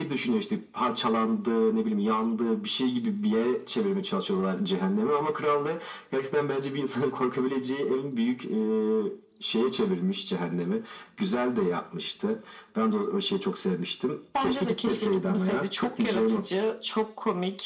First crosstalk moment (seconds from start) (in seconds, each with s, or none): 14.4 s